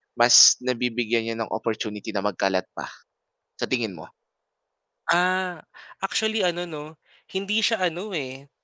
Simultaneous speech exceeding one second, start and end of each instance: none

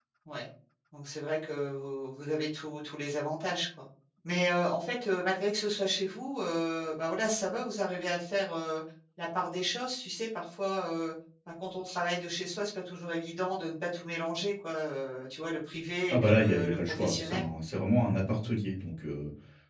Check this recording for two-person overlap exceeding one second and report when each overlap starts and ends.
16.1-17.5

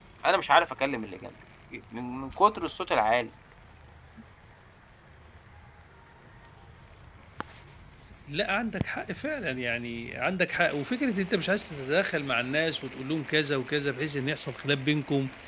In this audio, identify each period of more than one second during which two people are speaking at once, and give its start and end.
none

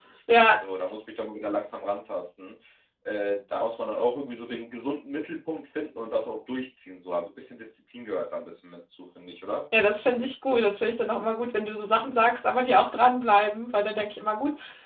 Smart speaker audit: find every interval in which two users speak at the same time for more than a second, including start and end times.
none

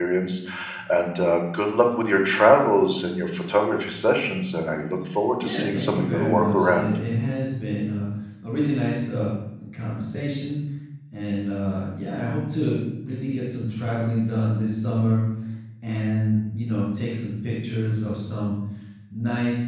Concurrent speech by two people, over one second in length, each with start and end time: 5.4-6.9

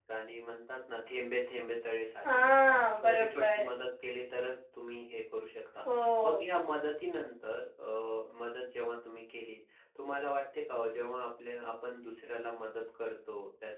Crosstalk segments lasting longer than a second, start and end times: 2.3-3.7

